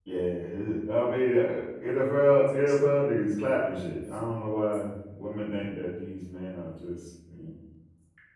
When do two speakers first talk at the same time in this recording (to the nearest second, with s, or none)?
none